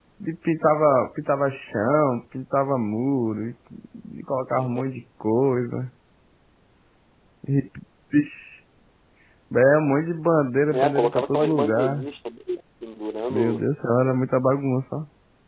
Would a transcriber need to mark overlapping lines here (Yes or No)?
Yes